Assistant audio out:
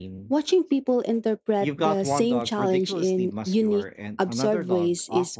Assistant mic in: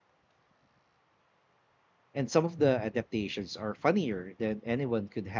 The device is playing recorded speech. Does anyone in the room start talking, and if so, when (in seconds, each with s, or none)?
2.1 s